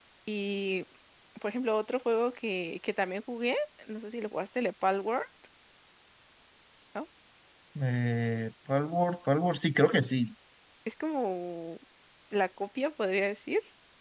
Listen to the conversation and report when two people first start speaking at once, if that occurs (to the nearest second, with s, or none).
none